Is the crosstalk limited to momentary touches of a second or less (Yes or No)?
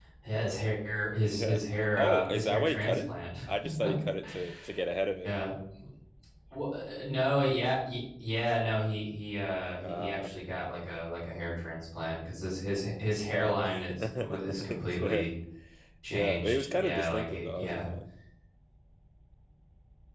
No